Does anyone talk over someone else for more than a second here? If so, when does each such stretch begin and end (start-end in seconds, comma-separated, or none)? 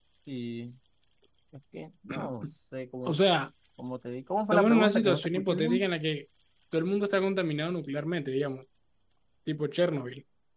4.5-5.9